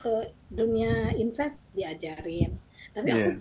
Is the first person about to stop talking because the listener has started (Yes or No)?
No